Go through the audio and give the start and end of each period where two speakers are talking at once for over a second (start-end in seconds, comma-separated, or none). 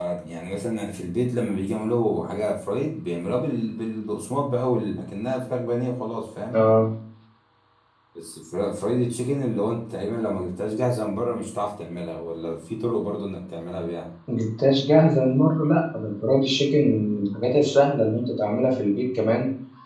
none